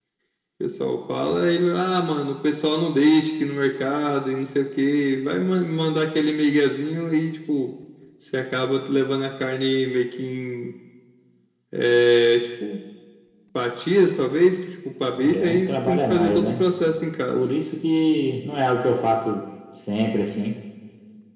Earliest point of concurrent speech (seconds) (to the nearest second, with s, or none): 15 s